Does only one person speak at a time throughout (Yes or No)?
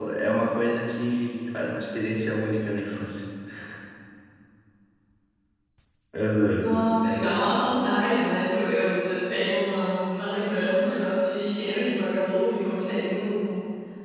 Yes